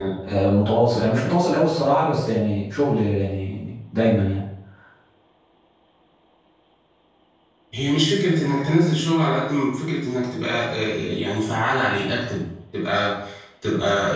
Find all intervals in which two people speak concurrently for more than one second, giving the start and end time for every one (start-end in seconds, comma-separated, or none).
none